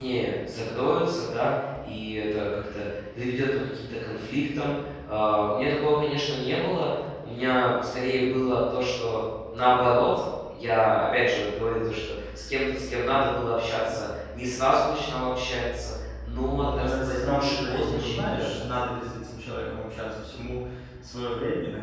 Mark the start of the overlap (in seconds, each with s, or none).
16.6 s